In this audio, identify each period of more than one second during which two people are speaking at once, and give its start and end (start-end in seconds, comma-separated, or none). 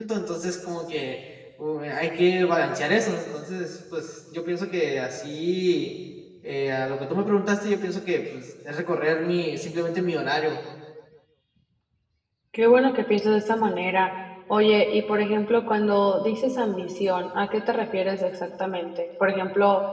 none